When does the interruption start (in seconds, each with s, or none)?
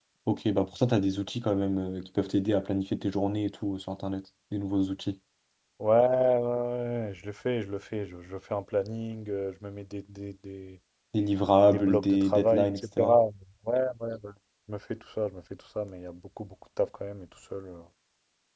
11.7 s